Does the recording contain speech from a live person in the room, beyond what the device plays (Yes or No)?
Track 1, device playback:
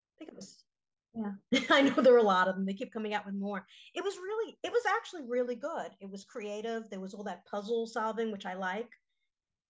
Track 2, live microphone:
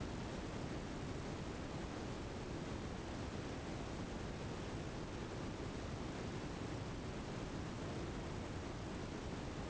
No